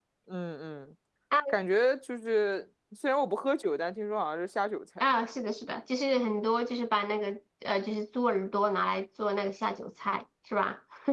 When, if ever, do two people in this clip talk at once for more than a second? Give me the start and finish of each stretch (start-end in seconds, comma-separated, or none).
none